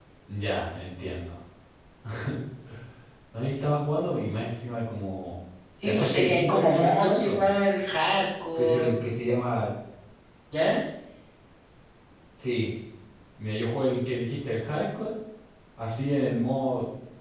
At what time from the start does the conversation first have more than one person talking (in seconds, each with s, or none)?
5.8 s